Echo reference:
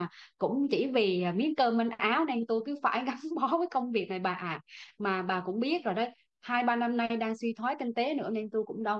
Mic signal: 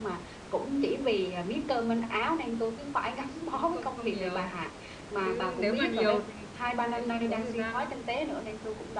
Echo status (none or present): present